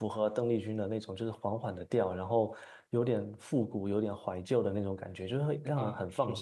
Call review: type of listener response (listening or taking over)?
taking over